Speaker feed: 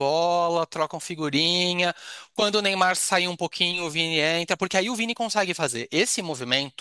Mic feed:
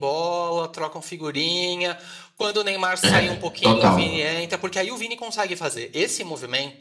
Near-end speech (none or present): present